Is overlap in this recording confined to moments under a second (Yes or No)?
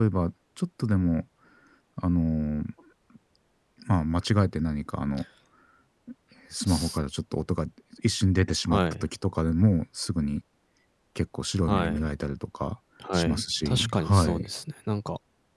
No